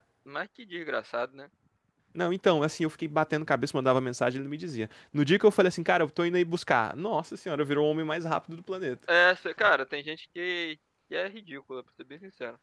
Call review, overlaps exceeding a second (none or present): none